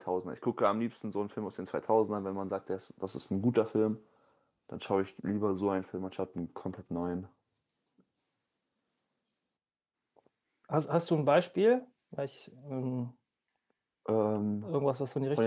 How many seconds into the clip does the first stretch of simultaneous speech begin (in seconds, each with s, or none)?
none